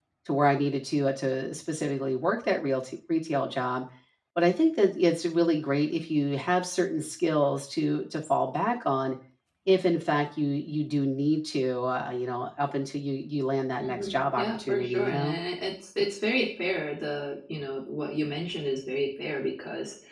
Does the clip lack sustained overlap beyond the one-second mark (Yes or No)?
No